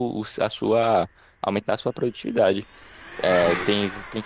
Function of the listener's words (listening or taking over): listening